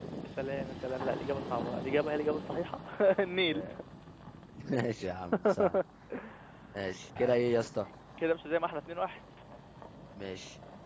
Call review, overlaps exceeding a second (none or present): none